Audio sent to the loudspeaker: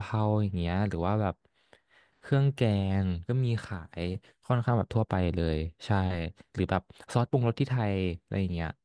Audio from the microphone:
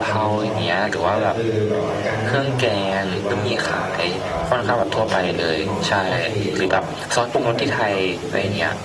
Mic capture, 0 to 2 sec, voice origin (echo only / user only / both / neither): both